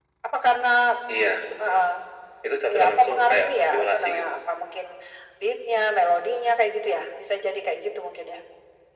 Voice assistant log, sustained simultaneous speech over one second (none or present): present